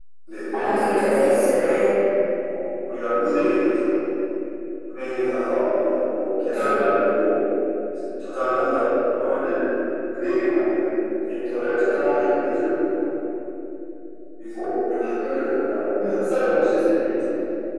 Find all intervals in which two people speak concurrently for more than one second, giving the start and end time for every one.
0.5-1.8

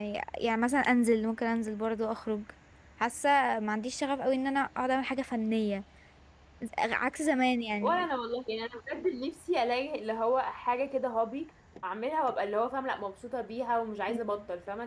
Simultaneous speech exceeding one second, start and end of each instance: none

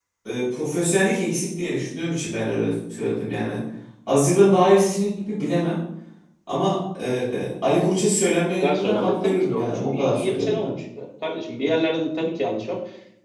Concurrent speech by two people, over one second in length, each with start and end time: 8.6-10.7

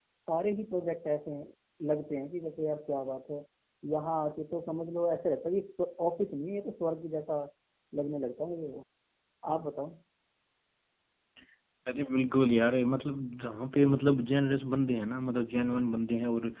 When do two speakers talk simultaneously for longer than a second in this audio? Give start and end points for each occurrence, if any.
none

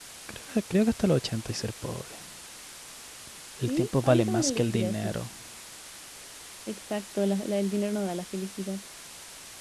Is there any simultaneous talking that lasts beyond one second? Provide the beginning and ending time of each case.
3.7-5.1

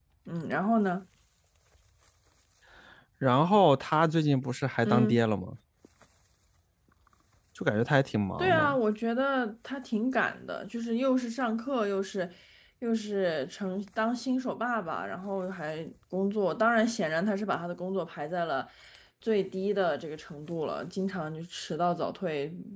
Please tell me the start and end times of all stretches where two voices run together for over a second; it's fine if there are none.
none

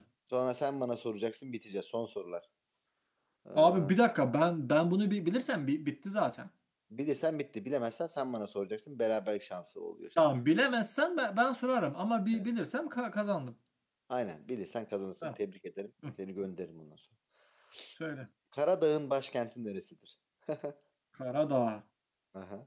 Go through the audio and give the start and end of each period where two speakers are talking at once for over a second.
none

